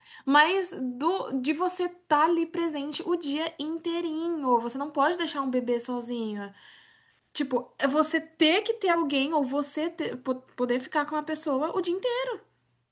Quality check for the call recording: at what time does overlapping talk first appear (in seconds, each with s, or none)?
none